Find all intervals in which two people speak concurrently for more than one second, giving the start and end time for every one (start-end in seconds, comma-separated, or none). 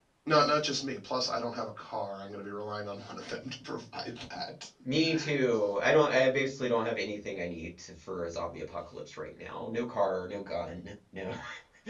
none